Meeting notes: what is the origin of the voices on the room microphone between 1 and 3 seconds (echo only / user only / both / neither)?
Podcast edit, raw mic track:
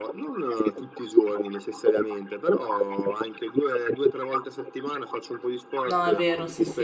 echo only